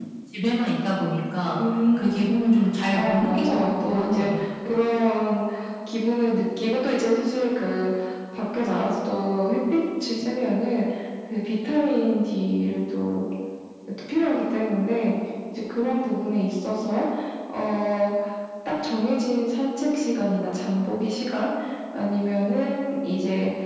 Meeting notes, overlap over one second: present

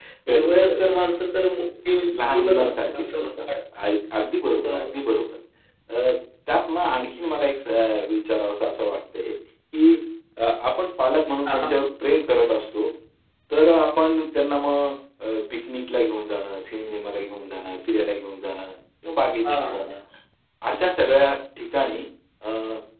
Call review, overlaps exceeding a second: present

